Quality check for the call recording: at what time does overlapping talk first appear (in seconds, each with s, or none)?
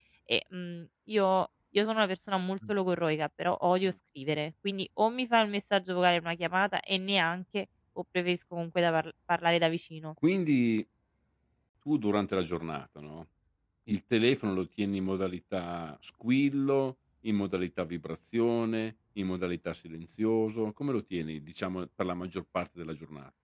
none